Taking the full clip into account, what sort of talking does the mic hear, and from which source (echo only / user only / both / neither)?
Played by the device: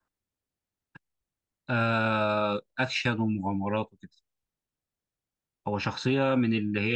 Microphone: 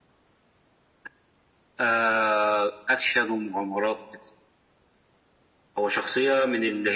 echo only